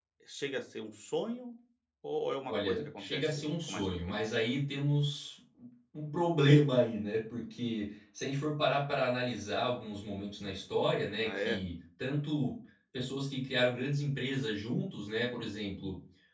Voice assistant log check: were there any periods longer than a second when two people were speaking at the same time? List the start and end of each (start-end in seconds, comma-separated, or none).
2.5-4.2